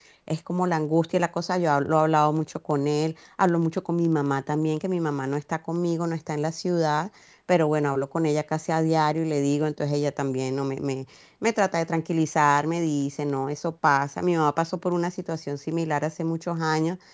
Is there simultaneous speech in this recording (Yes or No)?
No